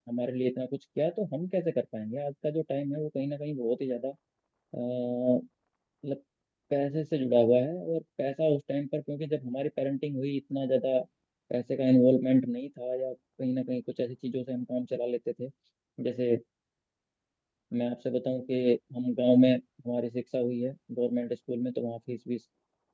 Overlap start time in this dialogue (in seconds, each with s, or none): none